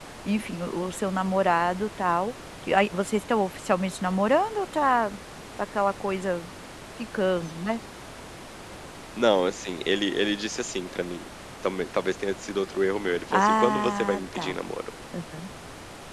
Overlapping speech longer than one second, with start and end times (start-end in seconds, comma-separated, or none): 13.3-14.6